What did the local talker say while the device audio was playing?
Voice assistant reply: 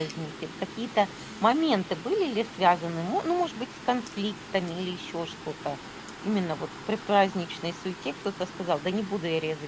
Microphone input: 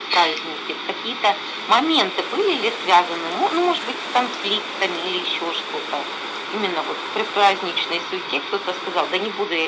none

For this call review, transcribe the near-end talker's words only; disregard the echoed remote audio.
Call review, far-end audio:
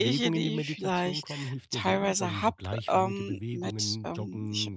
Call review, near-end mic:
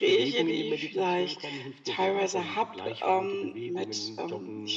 none

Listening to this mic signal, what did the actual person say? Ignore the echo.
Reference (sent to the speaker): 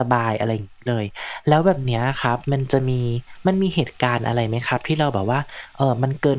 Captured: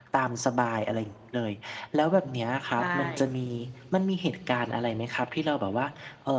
ใช่

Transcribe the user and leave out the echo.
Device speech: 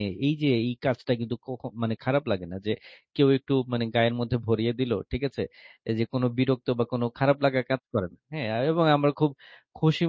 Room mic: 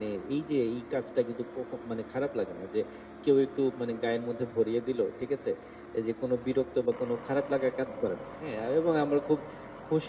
none

